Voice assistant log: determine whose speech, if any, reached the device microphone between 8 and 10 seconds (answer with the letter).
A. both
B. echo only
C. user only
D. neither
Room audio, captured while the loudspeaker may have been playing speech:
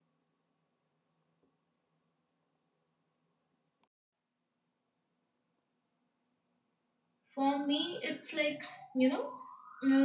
C